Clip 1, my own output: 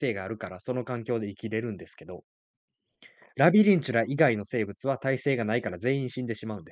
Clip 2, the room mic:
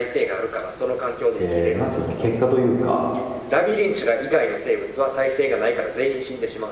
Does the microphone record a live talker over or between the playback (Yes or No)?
Yes